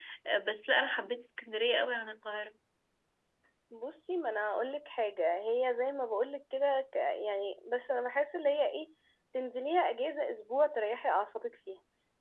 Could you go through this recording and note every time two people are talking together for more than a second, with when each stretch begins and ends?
none

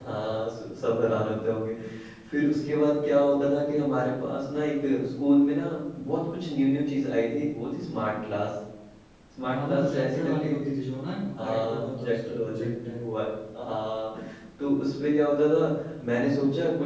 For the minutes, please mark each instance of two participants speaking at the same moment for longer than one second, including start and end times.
9.5-10.7, 11.4-13.0

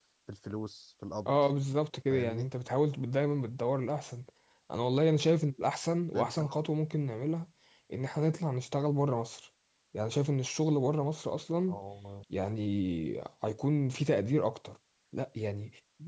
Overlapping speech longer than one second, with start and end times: none

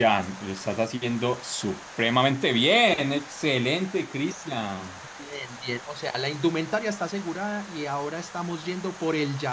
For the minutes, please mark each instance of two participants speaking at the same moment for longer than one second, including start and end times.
none

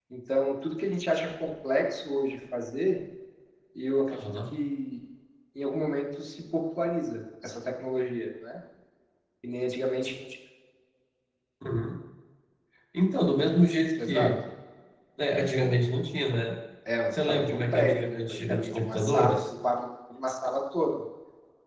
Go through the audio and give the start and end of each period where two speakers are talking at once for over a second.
17.3-19.4

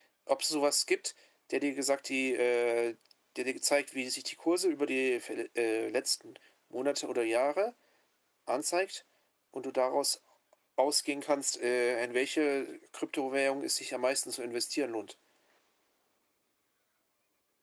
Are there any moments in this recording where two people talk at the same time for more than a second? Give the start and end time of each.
none

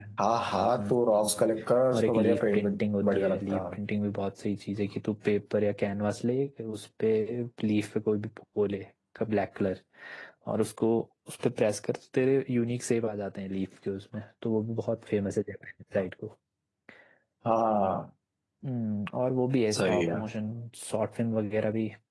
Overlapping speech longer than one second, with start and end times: 1.9-3.8

